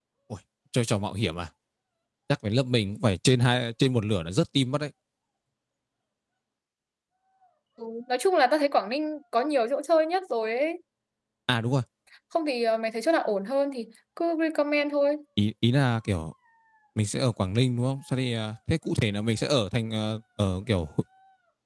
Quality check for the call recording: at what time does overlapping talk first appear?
none

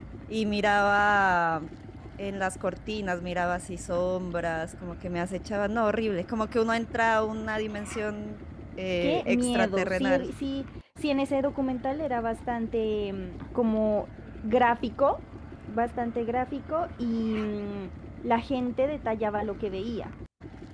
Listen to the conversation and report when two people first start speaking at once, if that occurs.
9.0 s

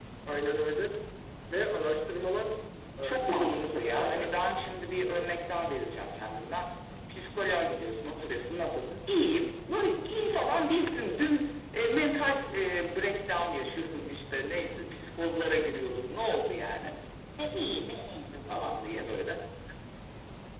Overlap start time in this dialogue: 3.0 s

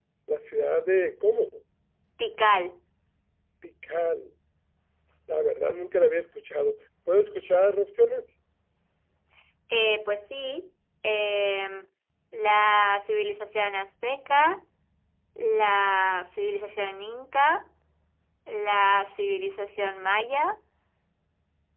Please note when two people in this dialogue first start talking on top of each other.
none

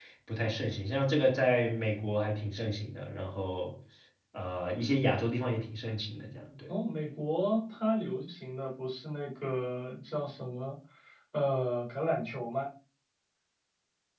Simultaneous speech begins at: none

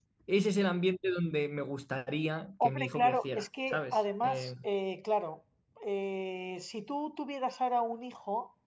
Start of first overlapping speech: 2.6 s

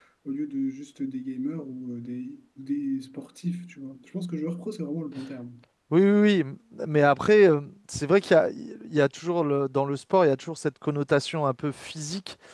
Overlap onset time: none

